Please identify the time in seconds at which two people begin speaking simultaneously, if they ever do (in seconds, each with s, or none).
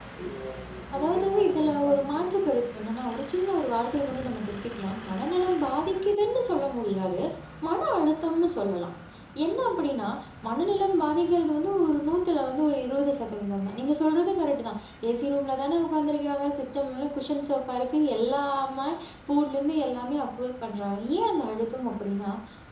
1.0 s